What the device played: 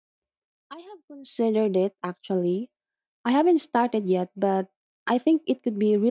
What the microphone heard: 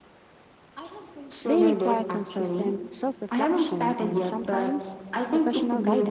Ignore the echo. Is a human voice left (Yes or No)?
Yes